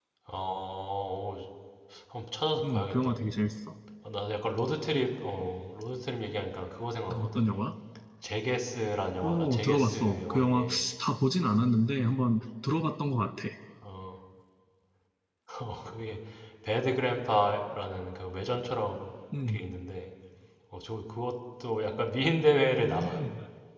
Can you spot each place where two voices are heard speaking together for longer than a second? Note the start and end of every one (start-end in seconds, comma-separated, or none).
9.2-10.6